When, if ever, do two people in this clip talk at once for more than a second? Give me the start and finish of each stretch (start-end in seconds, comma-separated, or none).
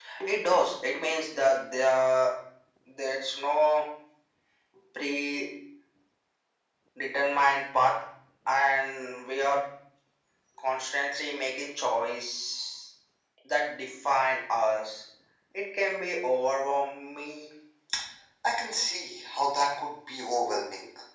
none